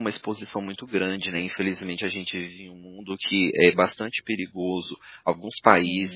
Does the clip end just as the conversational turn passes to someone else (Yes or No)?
No